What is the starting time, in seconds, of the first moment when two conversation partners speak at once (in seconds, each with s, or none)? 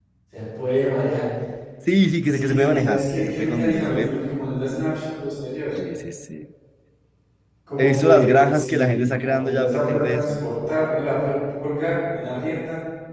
2.2 s